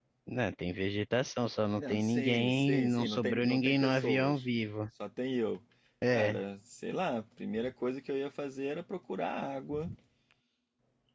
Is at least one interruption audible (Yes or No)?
Yes